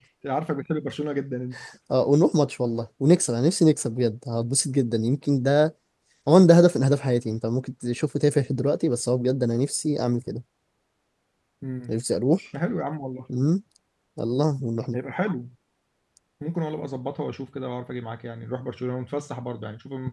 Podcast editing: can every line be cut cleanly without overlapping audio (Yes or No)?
Yes